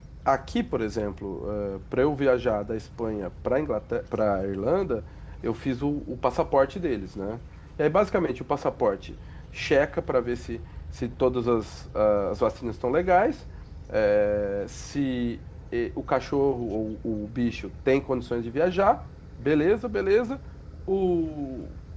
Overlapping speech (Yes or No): No